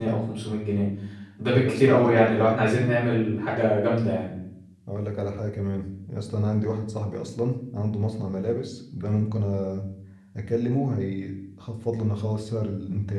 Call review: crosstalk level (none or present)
present